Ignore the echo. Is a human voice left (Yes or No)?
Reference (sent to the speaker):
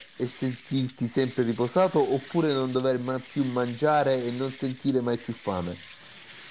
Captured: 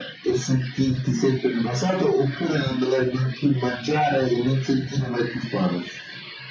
No